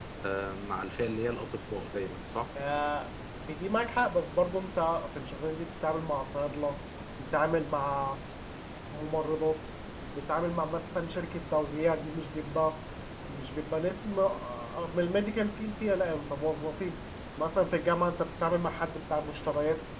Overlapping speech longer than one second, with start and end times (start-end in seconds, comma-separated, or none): none